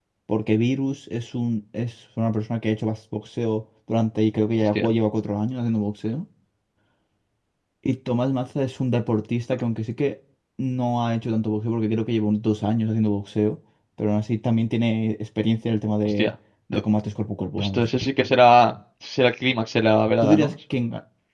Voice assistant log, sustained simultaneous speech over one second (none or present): none